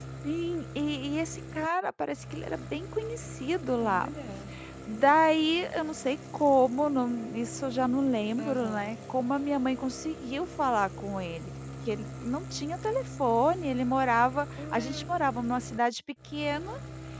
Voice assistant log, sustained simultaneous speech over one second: none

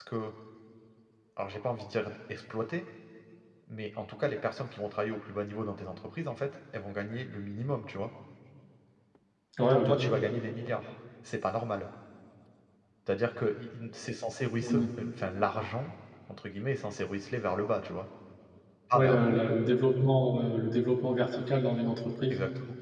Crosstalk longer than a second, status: none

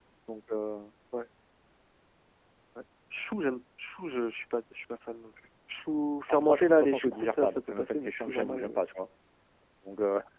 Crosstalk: present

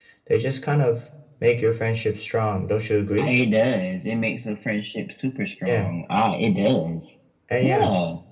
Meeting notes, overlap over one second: none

